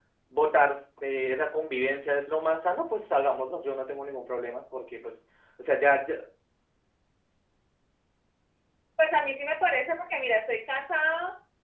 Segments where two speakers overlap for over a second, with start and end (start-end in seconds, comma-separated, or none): none